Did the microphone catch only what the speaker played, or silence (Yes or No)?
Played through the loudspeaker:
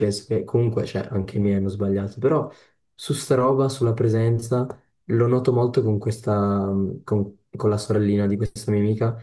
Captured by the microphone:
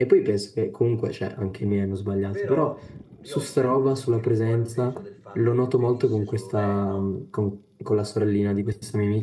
No